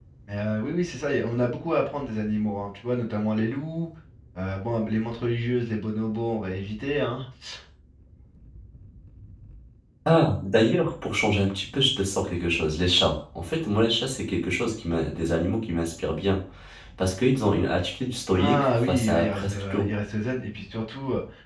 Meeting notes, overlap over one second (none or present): present